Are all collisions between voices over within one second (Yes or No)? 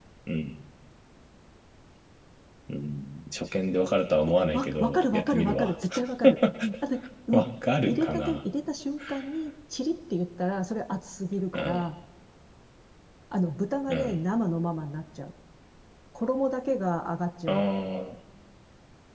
No